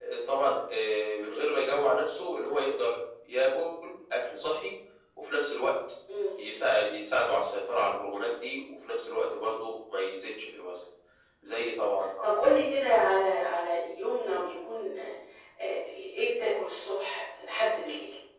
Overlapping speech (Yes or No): No